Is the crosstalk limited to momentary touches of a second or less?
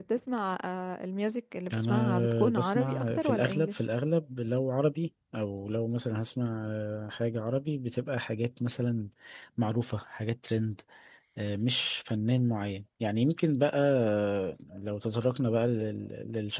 No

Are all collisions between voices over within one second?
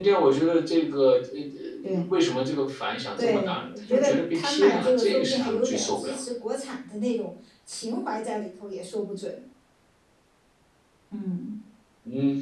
No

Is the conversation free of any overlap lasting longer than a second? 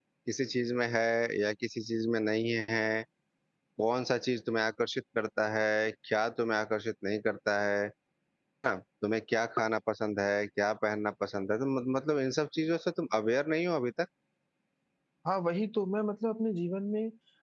Yes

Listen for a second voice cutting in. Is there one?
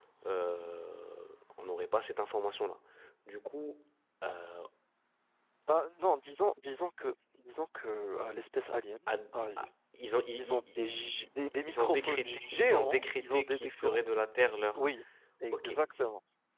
Yes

